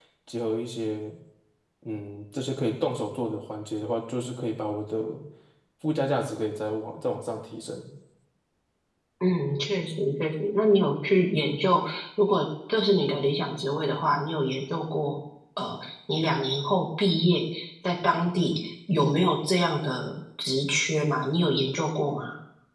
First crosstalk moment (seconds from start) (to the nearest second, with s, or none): none